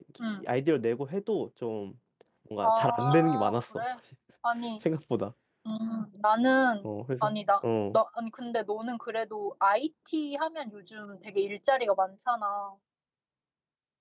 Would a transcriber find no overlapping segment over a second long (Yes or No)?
No